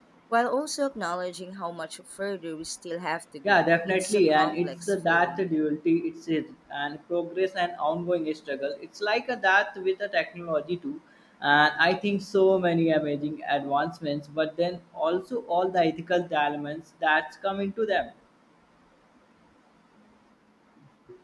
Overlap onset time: 3.4 s

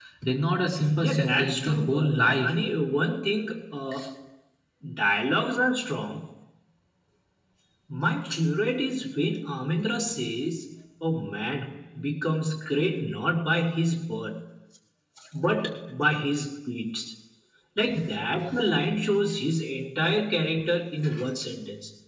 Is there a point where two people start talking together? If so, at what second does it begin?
1.0 s

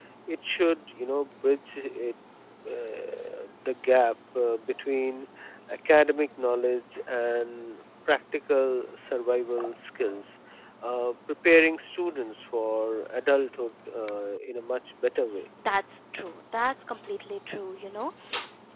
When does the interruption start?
none

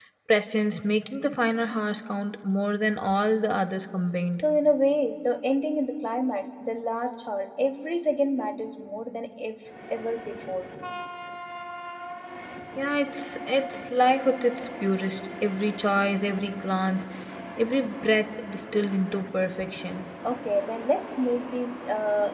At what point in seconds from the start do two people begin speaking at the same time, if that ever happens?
none

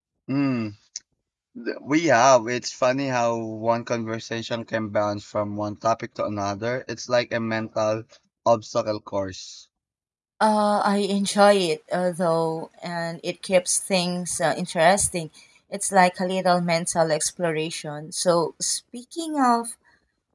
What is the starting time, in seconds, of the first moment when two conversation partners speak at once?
none

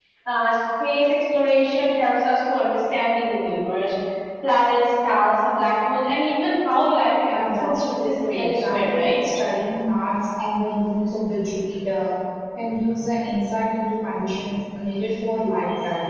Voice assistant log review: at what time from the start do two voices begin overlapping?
7.3 s

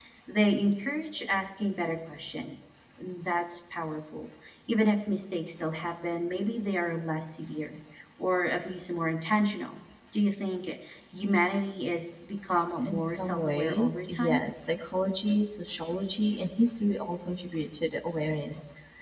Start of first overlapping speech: 12.8 s

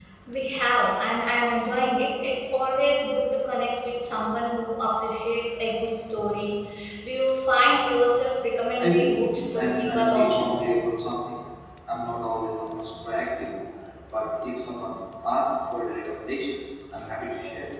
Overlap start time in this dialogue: 8.8 s

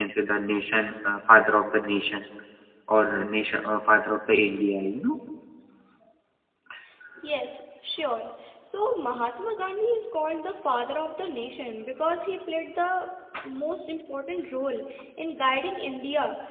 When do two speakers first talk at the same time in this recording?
none

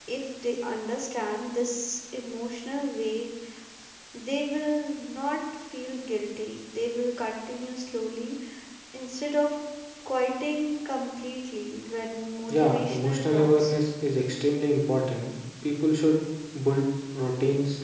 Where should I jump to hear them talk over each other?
12.5 s

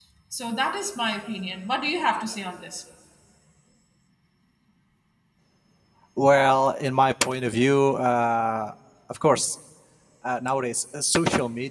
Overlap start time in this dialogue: none

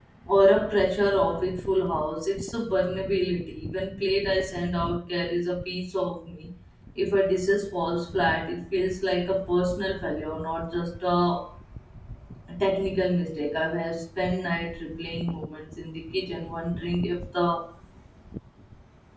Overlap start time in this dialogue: none

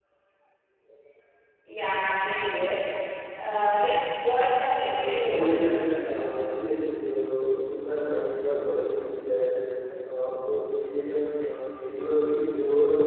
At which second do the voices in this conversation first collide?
4.8 s

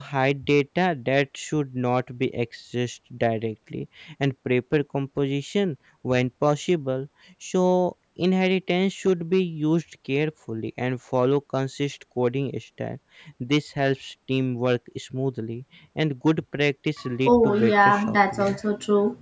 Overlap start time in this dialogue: 17.3 s

